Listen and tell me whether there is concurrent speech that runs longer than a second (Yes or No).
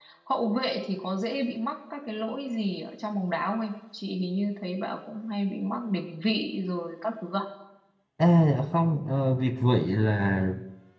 No